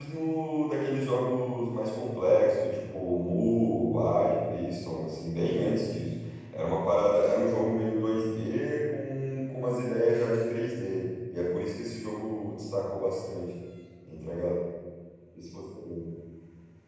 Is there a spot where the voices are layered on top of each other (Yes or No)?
No